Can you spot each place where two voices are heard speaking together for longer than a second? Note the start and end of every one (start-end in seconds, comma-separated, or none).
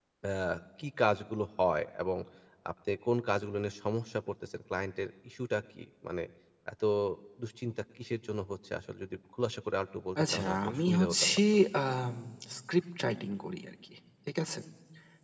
10.2-11.4